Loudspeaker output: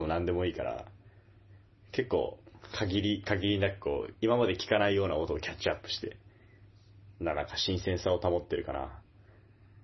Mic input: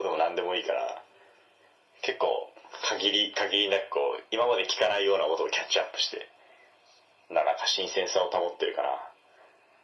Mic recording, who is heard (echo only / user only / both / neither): echo only